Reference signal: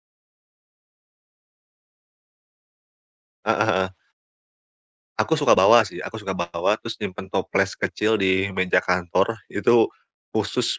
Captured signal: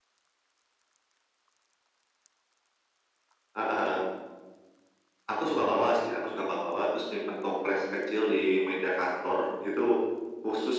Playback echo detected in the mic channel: Yes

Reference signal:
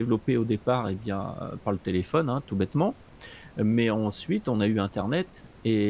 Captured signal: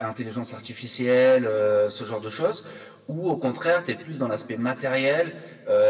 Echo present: No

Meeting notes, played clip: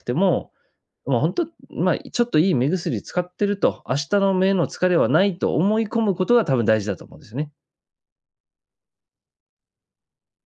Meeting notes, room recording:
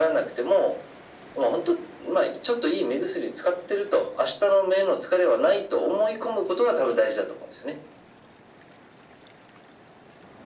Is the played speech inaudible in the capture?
No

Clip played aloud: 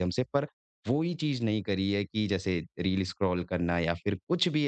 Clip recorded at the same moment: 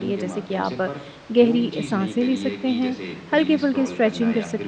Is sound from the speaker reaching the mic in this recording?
Yes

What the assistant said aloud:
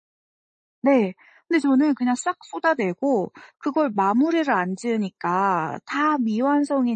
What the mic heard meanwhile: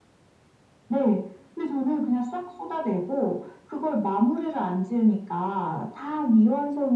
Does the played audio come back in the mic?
Yes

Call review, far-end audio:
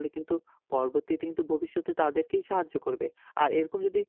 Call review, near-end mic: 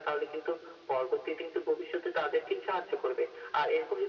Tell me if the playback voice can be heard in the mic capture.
Yes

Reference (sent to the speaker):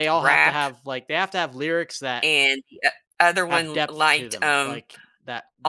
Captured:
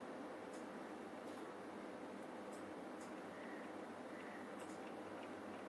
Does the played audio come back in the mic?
No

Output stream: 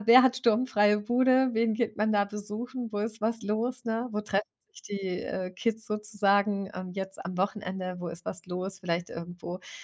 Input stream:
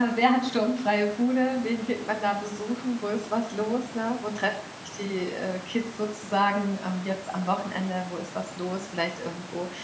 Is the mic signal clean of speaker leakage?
No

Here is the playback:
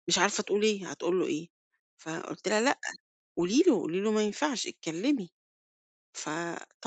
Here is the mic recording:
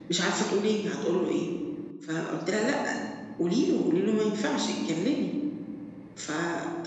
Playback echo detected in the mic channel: Yes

